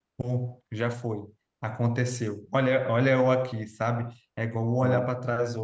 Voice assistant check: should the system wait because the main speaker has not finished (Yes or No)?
Yes